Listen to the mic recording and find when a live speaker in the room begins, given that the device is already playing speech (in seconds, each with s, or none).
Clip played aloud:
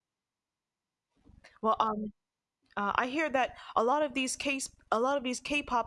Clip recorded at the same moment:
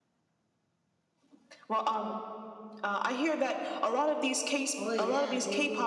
4.8 s